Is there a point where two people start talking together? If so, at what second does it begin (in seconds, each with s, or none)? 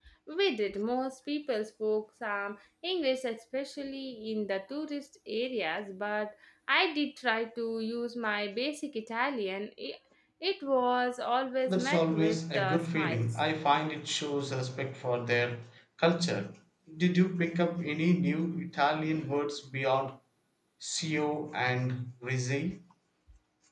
11.7 s